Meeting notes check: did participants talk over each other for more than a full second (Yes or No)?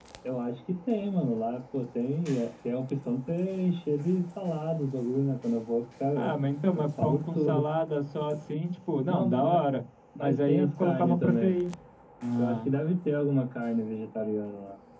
Yes